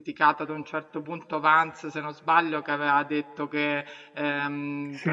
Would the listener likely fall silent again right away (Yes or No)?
Yes